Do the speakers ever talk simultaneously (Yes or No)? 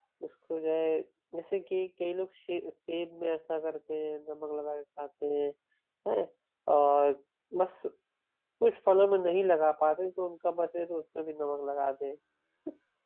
No